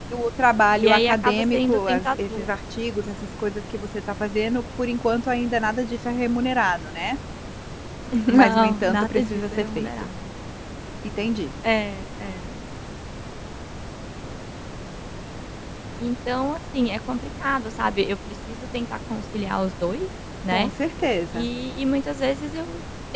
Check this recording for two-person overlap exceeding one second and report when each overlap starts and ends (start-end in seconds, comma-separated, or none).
0.8-2.5, 8.3-9.9